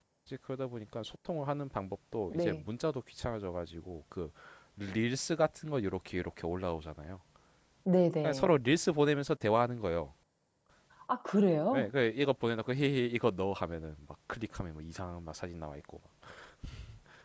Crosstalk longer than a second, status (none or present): none